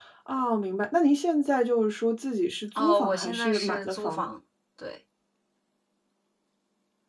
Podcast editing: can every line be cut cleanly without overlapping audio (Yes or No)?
No